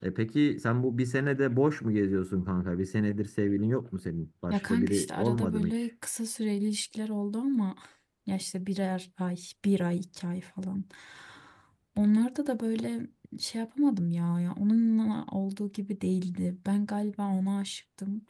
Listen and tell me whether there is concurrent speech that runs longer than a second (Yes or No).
Yes